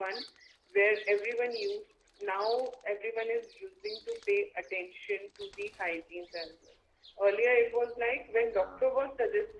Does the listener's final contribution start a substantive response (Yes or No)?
No